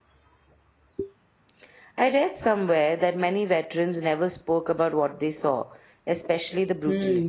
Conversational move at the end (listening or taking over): taking over